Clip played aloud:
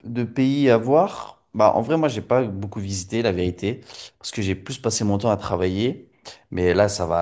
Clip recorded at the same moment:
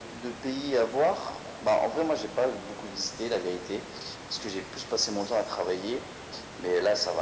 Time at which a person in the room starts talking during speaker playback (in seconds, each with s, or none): none